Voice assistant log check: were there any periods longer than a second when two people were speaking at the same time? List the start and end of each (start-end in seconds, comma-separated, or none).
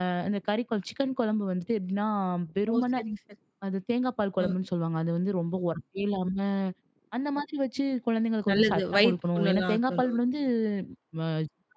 8.5-10.2